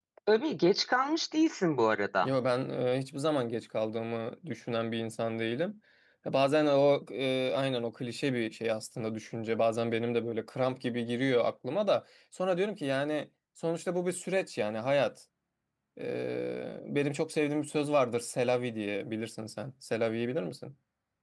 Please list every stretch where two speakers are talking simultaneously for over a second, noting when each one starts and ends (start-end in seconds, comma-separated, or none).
none